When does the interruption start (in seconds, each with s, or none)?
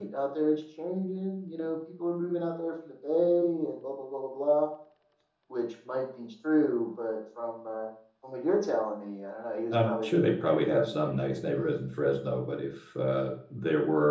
9.7 s